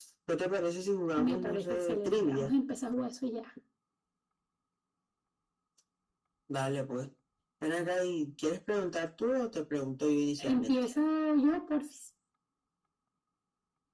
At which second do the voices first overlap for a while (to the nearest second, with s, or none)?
1 s